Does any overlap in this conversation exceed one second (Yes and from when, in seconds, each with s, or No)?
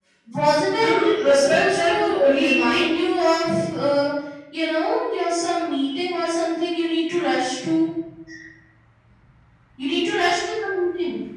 Yes, from 0.8 s